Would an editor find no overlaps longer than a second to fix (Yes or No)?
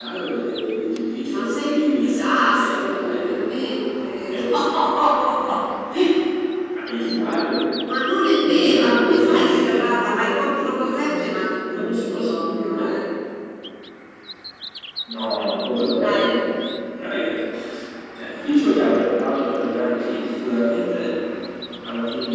No